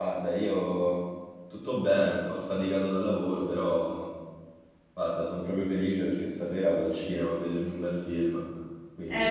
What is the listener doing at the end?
taking over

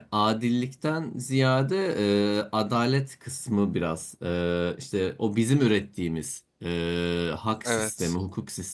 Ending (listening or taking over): listening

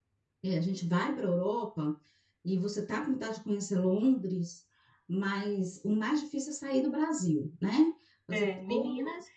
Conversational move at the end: taking over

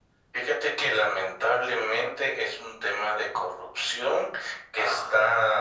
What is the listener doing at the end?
listening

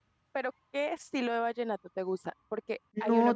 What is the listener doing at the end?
listening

